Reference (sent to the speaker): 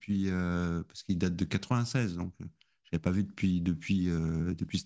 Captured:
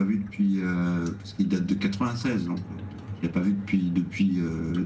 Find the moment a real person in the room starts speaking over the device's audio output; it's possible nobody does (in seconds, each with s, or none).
none